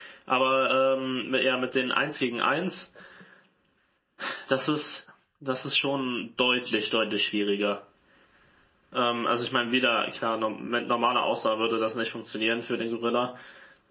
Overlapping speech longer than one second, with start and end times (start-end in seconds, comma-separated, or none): none